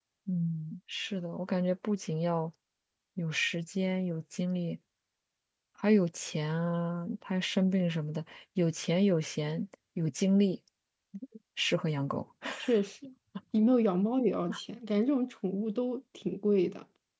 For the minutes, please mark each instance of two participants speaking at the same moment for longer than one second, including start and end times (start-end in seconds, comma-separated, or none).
none